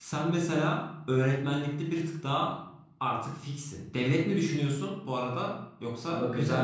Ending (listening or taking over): taking over